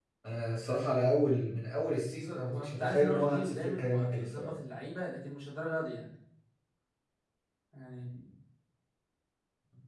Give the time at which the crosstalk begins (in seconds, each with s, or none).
2.5 s